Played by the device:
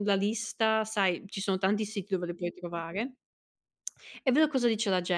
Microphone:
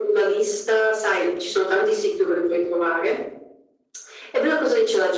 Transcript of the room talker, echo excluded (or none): none